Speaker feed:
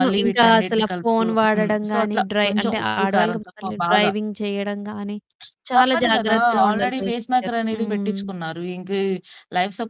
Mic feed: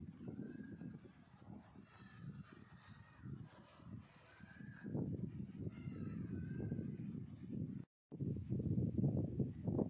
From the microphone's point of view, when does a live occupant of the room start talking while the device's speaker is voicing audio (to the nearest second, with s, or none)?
none